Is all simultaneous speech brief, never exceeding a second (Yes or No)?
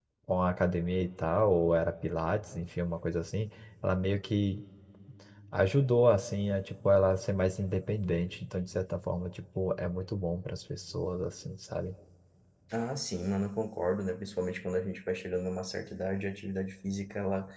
Yes